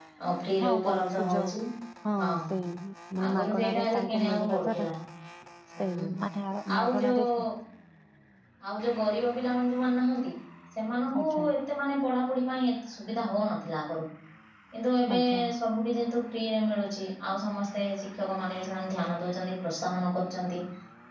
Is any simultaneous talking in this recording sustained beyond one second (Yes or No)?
Yes